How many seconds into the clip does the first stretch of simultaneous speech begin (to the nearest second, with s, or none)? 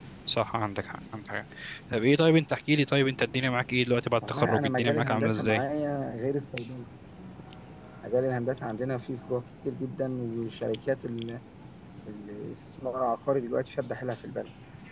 4 s